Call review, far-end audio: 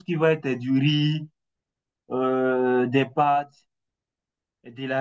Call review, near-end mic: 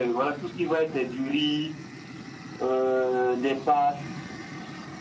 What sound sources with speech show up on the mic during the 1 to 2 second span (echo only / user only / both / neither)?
echo only